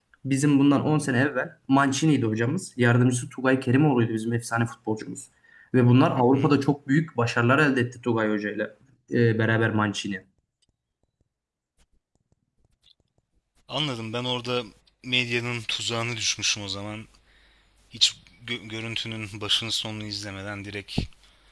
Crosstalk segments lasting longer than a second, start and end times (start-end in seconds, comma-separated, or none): none